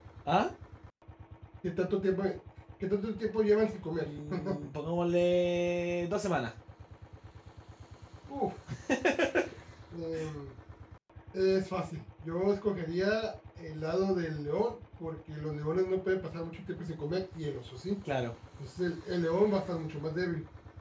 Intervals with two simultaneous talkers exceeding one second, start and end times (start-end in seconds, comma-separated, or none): none